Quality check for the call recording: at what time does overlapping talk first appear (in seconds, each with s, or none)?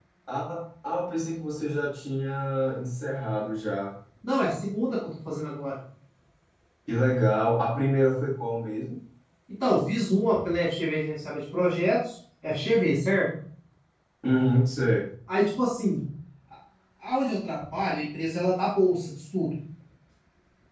none